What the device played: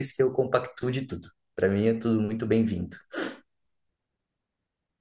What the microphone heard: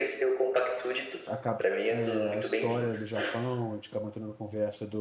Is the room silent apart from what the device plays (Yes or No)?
No